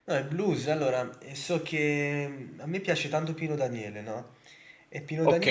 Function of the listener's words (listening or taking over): listening